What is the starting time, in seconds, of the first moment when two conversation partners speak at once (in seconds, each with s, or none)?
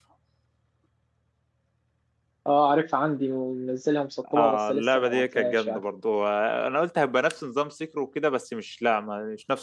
4.2 s